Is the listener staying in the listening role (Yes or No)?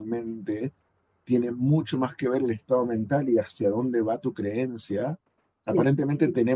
Yes